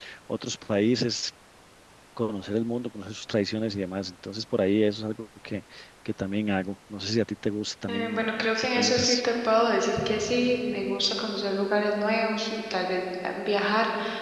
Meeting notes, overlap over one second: present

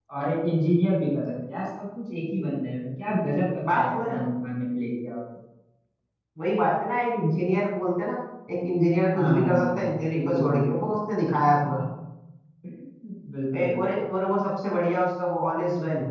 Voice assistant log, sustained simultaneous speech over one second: present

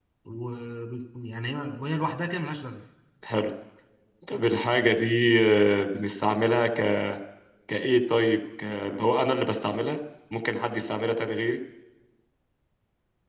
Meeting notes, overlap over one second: none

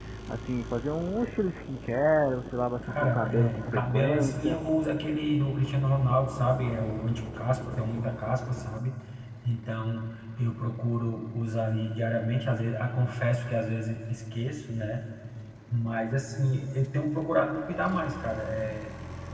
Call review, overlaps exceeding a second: present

